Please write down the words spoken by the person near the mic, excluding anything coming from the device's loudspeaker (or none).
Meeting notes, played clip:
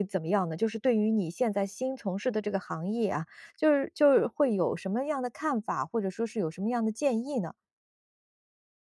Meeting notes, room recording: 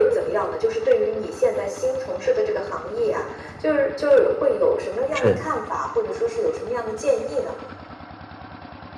是。